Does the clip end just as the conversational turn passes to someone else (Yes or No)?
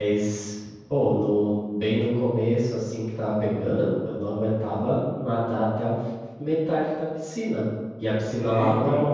No